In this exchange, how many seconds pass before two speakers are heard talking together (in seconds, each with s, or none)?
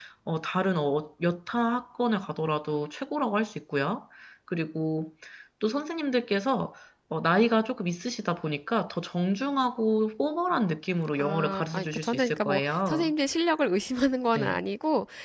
11.2 s